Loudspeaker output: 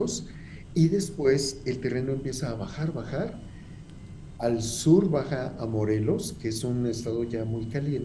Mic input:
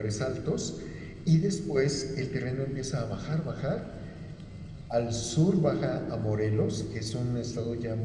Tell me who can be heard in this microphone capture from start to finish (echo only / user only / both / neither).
echo only